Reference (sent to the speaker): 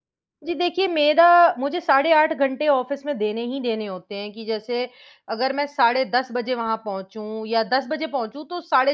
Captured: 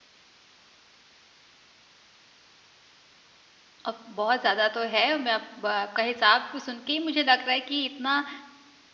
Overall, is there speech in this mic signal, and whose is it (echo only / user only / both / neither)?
user only